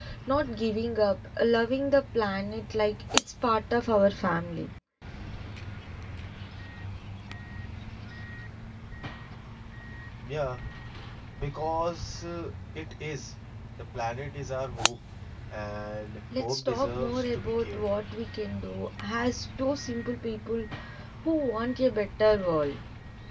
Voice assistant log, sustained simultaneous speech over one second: present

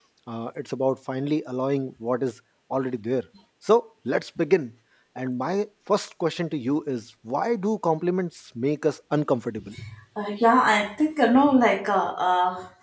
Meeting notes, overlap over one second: none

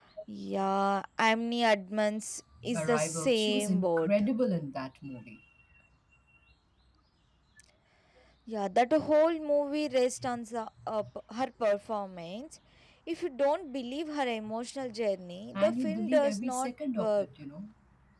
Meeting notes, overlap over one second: present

